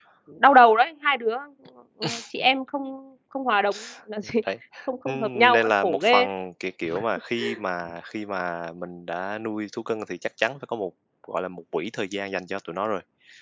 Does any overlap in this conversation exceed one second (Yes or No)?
Yes